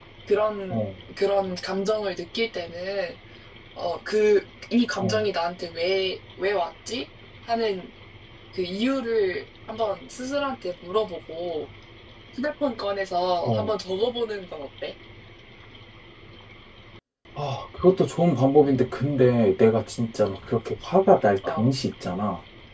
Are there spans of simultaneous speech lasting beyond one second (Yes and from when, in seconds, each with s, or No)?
No